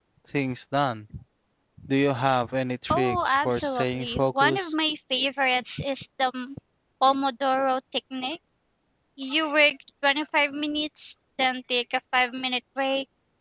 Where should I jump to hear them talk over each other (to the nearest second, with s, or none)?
3 s